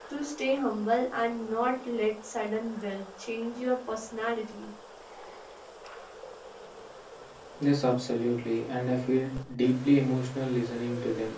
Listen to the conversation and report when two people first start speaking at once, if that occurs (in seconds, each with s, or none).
none